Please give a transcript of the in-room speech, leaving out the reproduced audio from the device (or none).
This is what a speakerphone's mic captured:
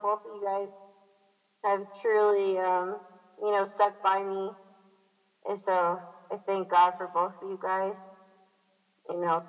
none